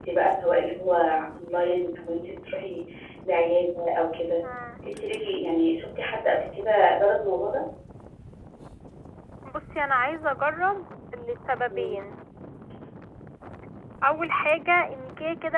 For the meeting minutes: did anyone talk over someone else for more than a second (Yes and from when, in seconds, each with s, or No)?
No